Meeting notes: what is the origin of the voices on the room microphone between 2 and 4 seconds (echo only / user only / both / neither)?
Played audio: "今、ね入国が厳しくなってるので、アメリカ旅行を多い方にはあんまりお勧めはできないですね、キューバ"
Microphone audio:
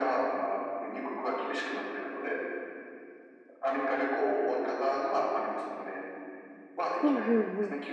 echo only